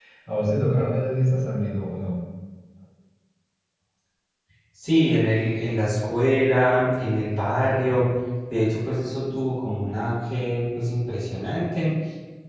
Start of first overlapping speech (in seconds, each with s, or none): none